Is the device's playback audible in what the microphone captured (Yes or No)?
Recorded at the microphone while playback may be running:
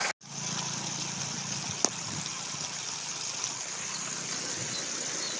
No